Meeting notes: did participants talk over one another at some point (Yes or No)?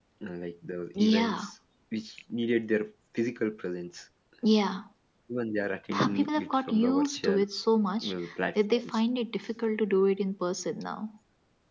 Yes